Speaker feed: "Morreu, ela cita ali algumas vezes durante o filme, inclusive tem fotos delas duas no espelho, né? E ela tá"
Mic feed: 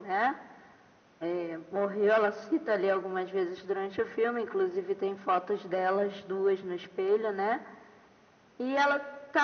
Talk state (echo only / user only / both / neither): echo only